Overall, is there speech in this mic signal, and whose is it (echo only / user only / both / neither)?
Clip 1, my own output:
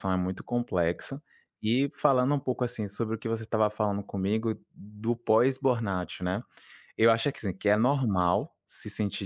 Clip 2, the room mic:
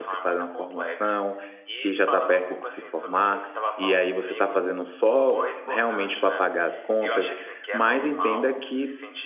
both